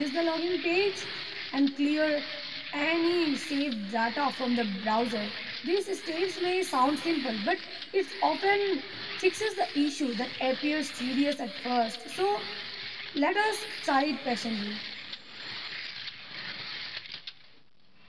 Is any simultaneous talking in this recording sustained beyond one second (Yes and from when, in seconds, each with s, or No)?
No